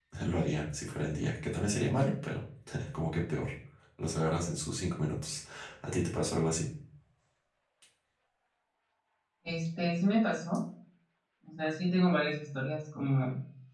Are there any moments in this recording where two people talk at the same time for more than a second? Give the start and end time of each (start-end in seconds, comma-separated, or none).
none